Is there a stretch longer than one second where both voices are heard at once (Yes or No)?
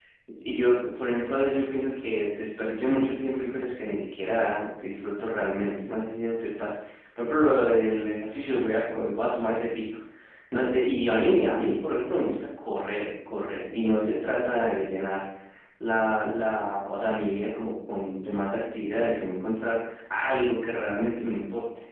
No